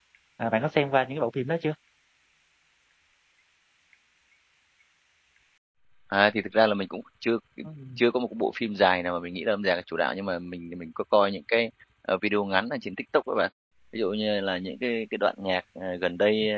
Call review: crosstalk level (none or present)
none